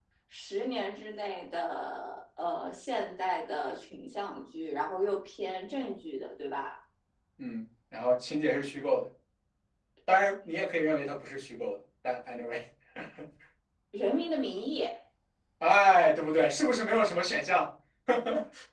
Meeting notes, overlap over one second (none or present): none